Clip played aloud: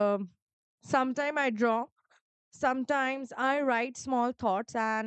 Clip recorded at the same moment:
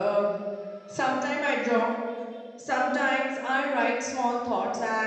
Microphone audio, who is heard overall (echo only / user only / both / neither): echo only